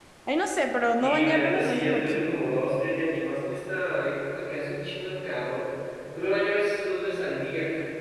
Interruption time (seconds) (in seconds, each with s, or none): 1.0 s